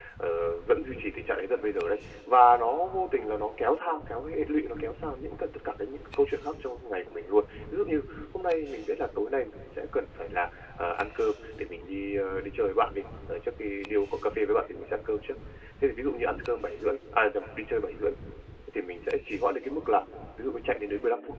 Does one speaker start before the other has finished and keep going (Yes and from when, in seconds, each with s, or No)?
No